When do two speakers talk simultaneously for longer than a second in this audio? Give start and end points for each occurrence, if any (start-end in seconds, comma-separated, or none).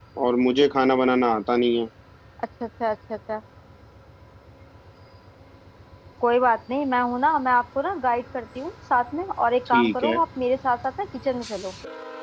none